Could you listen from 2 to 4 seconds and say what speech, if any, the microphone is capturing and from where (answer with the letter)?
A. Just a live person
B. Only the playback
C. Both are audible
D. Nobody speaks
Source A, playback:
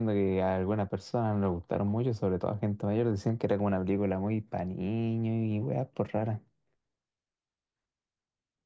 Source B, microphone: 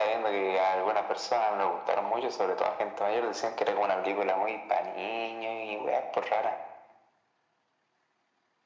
B